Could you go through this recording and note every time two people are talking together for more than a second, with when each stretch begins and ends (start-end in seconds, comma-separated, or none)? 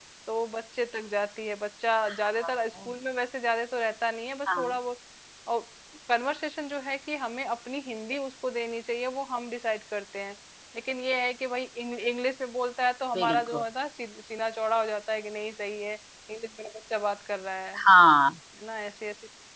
none